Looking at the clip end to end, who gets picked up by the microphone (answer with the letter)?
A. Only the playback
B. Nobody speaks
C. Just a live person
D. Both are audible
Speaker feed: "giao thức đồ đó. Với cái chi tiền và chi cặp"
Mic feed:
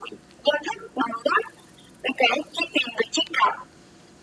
A